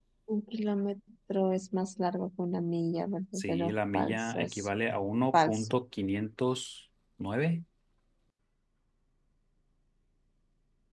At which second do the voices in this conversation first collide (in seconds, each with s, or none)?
3.4 s